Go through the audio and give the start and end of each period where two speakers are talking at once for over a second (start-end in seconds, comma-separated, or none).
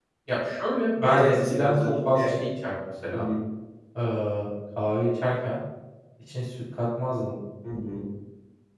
1.0-2.4